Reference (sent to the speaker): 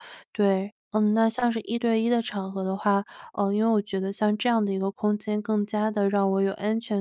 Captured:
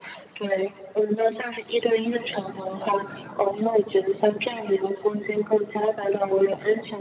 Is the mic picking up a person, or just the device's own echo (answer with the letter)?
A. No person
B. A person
A